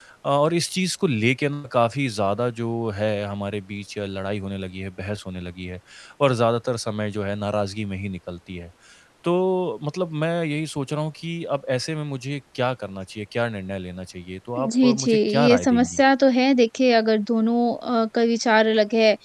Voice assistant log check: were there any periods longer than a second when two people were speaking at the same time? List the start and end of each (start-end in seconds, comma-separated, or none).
14.6-16.0